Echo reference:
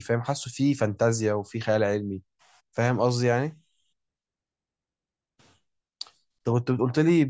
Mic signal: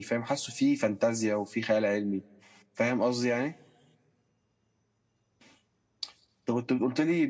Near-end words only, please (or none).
none